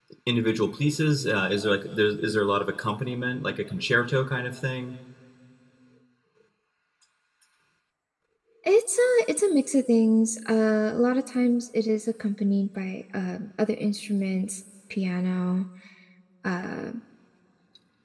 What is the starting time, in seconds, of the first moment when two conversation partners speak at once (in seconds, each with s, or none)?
none